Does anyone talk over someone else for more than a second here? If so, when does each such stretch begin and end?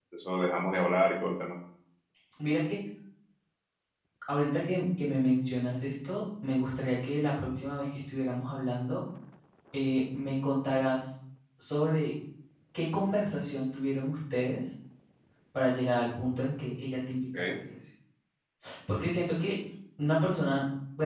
none

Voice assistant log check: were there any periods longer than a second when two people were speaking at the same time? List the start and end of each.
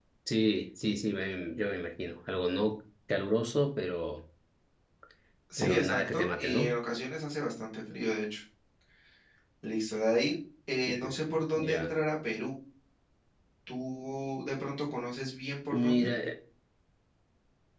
5.6-6.8

